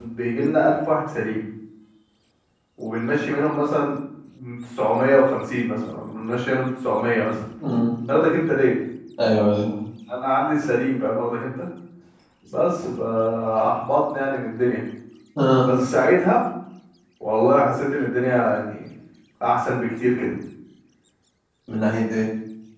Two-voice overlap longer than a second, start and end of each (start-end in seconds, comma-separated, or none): none